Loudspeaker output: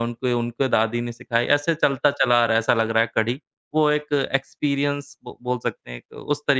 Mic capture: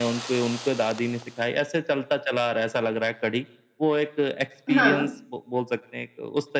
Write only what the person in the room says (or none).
हाँ।